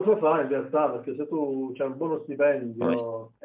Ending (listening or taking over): listening